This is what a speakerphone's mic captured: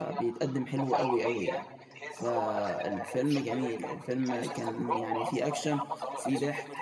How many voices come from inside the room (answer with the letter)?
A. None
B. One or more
B